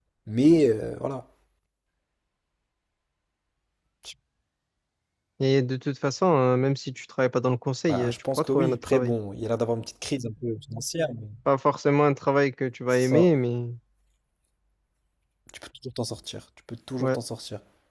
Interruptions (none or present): present